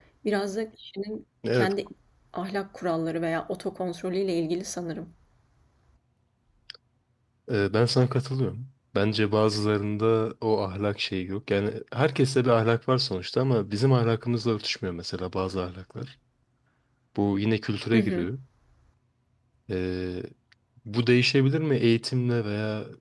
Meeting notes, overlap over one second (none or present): none